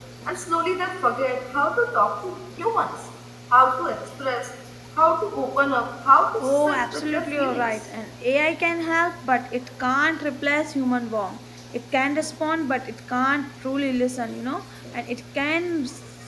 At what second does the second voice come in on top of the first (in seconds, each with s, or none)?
6.4 s